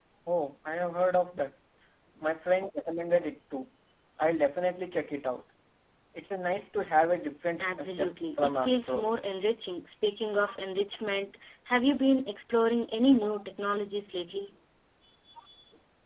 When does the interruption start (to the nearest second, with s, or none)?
8 s